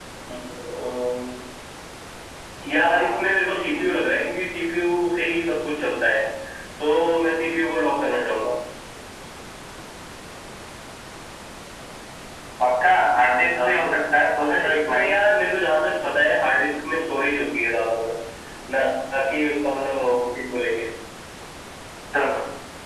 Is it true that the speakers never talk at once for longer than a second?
No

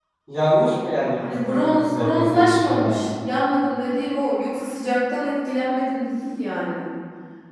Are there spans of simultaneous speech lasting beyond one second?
Yes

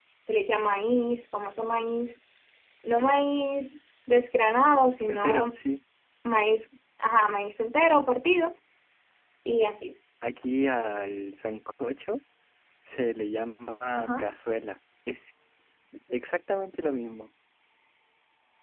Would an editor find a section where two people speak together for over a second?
No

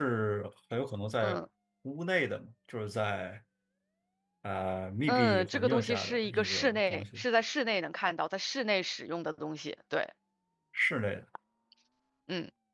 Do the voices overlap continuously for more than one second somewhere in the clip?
Yes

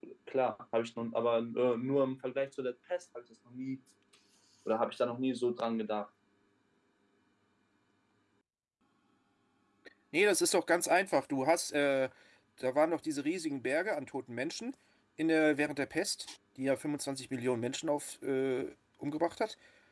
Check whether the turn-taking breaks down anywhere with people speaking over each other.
No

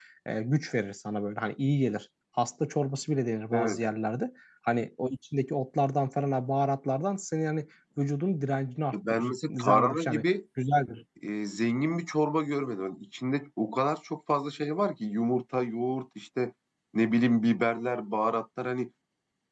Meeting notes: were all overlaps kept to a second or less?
No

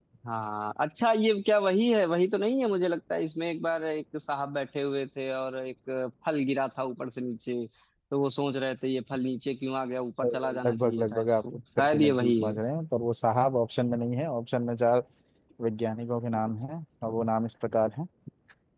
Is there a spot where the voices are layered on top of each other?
Yes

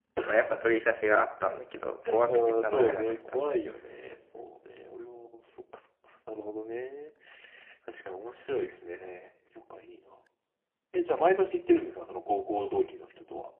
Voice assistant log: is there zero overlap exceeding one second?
No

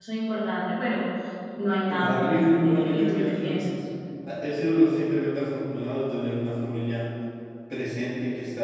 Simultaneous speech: Yes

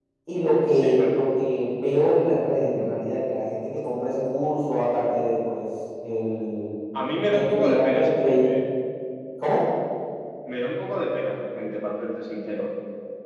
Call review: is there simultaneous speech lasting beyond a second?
Yes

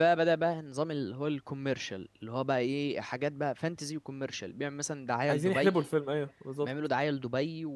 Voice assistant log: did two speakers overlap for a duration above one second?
No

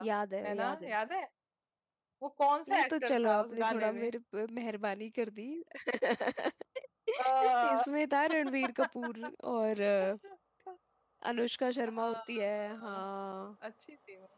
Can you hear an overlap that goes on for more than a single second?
Yes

